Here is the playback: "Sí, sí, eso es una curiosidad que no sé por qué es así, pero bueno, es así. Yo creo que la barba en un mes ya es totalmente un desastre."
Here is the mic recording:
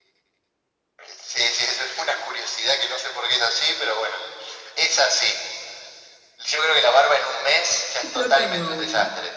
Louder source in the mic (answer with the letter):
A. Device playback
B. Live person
A